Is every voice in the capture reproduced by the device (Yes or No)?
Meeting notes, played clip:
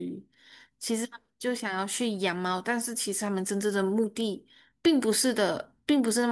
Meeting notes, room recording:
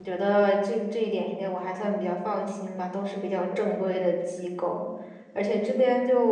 No